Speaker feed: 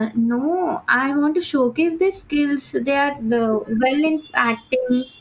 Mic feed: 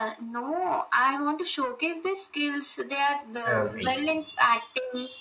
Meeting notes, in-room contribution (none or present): present